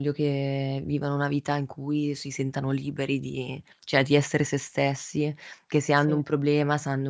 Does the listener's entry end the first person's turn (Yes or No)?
No